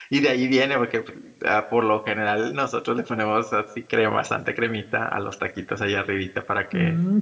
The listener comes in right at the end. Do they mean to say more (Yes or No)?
Yes